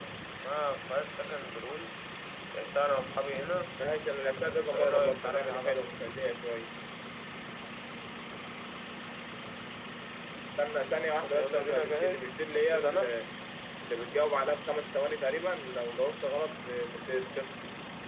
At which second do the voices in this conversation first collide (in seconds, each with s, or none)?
4.4 s